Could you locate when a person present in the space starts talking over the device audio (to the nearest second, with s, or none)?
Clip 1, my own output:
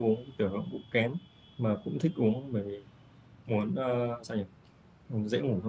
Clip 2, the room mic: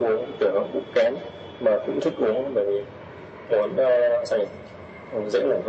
none